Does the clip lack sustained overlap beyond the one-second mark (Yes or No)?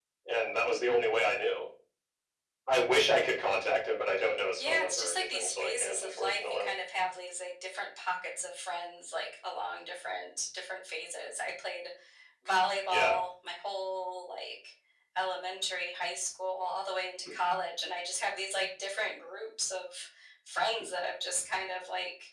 No